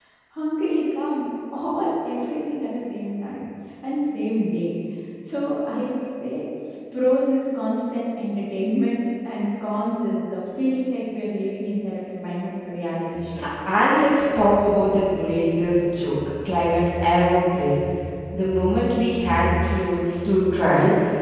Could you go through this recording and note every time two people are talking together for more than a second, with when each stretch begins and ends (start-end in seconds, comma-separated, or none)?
none